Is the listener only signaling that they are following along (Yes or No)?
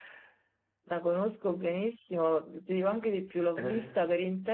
Yes